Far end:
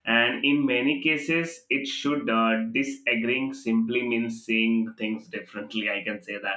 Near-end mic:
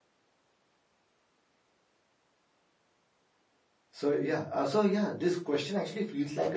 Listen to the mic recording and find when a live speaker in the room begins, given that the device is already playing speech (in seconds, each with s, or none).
4.0 s